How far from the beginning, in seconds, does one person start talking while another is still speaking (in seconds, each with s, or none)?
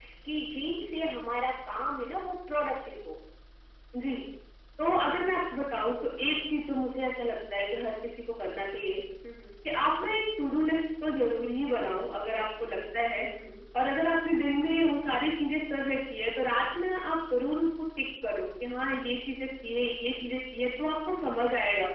none